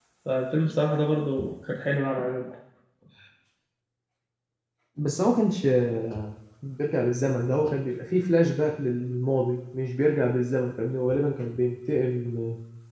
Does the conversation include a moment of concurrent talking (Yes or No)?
No